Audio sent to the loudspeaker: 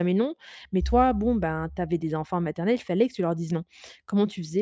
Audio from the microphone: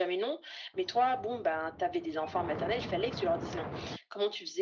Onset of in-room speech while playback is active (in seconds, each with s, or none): none